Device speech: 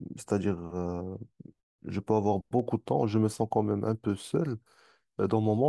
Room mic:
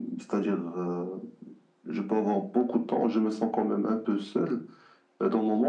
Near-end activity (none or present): none